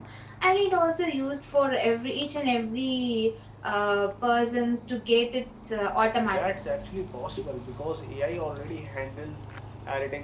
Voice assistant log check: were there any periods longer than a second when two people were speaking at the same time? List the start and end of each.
none

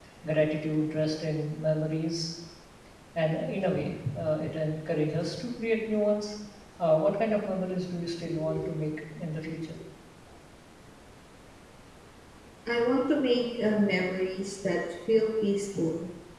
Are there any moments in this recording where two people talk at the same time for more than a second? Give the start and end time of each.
none

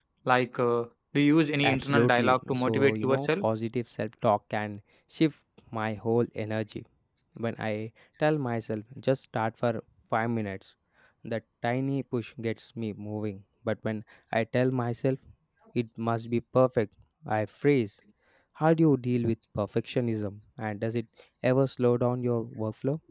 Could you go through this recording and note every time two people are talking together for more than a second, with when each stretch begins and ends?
1.6-3.5

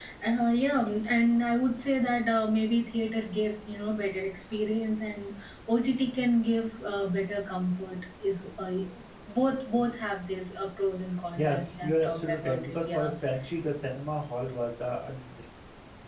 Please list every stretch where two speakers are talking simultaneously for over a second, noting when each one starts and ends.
11.3-13.1

